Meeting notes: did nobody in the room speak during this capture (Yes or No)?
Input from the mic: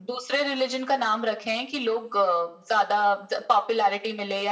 Yes